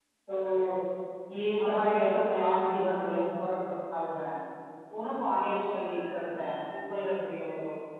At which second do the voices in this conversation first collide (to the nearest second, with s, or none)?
2 s